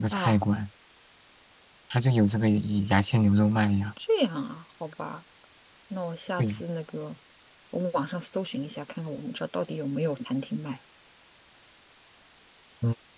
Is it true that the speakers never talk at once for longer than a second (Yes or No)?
Yes